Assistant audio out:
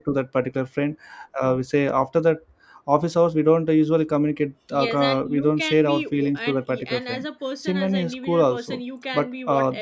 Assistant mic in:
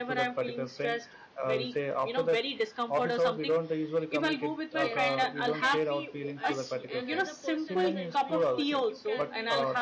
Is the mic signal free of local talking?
No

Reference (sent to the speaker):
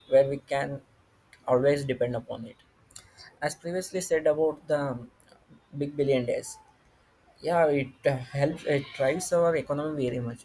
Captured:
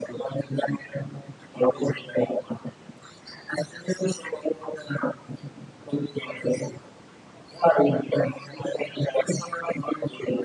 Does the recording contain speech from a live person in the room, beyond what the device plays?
No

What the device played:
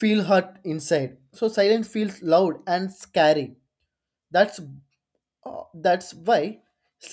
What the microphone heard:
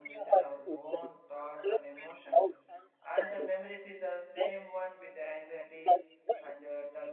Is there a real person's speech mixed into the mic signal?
Yes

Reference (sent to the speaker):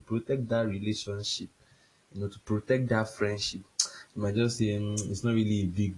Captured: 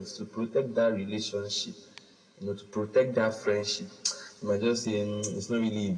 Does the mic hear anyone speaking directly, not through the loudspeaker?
No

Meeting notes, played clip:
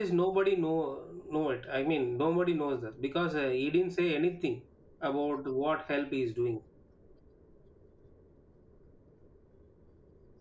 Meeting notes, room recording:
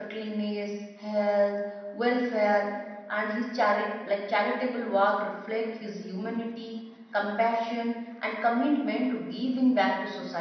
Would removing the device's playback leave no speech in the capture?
No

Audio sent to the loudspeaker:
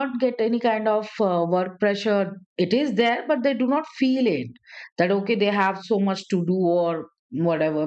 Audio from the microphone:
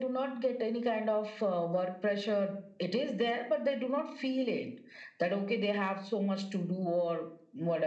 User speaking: No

